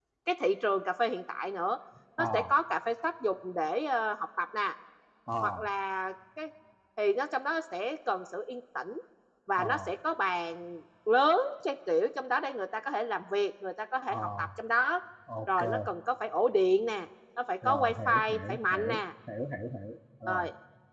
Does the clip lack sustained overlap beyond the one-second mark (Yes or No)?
No